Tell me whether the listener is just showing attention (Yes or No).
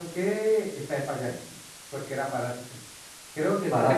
Yes